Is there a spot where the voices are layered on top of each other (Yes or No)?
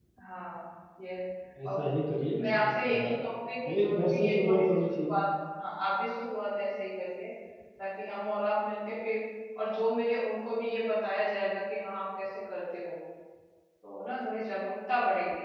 Yes